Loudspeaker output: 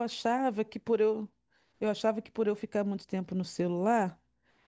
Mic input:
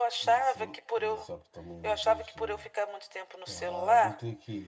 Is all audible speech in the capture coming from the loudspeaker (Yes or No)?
No